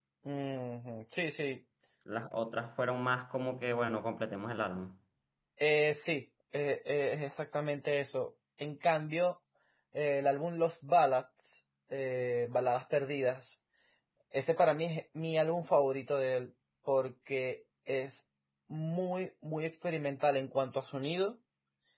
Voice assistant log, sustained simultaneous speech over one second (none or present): none